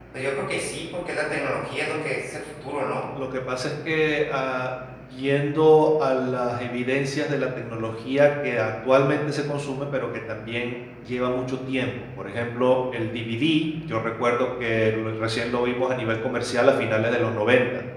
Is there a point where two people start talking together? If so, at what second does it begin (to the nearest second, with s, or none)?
none